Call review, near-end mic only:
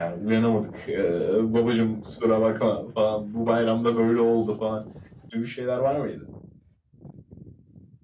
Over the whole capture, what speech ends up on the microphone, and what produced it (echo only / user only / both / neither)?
echo only